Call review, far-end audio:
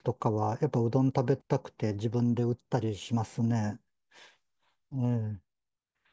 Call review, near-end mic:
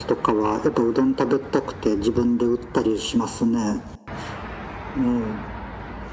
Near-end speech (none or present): none